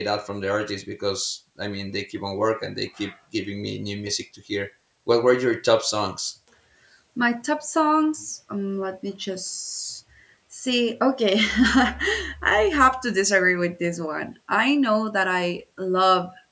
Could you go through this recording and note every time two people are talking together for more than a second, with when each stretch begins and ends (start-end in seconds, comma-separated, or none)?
none